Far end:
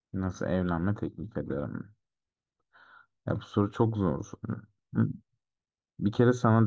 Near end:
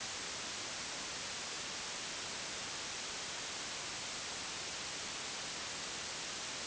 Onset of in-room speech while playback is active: none

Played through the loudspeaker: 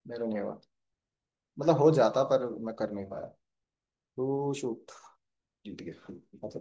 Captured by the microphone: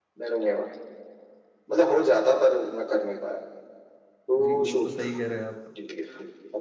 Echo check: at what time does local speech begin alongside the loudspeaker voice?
4.4 s

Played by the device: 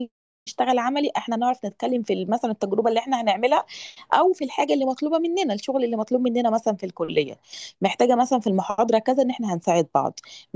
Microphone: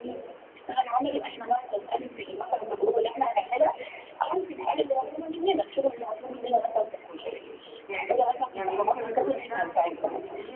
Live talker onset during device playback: 7.9 s

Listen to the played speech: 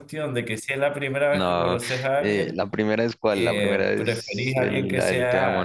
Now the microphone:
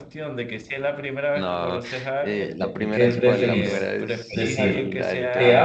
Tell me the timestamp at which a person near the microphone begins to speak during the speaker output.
2.6 s

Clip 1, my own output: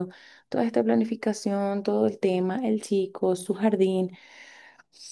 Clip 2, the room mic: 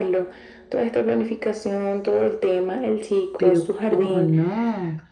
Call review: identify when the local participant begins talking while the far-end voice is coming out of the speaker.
3.4 s

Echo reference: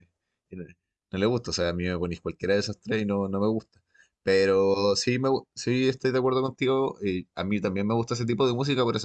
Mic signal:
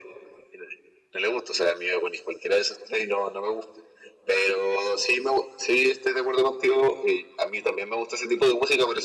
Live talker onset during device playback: none

